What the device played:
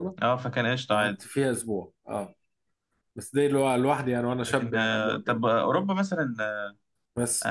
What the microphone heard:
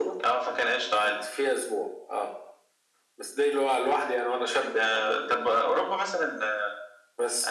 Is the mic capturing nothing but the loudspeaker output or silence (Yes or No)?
Yes